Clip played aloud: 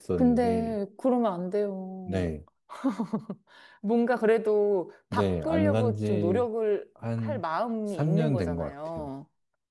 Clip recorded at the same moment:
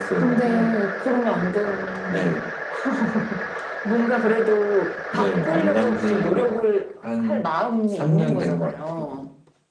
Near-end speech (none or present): none